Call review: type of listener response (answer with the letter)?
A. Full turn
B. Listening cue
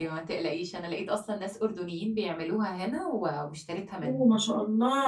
A